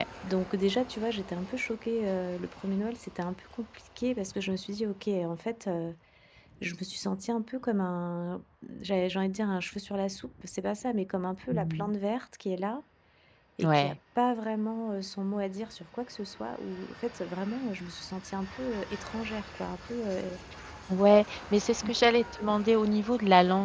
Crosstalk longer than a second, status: none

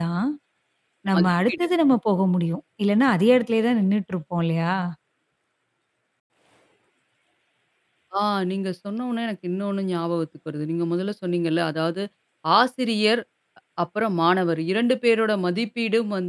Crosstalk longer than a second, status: none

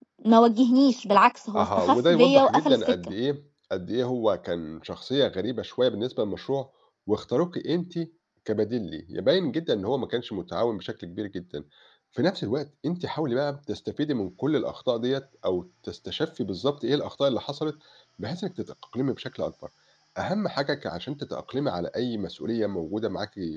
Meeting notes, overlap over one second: present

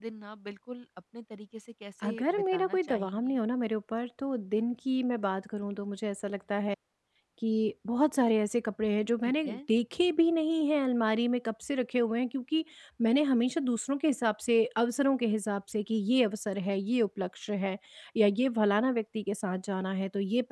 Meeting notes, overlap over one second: present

